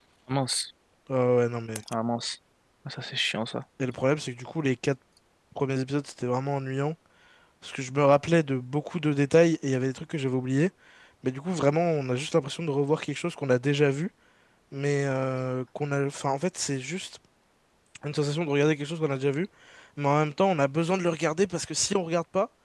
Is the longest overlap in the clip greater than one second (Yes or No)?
No